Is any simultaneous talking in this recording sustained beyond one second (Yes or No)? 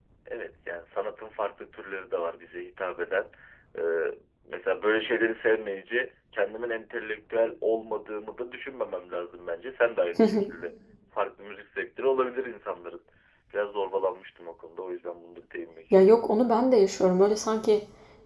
No